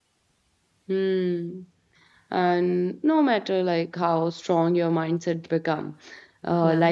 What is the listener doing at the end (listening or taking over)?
listening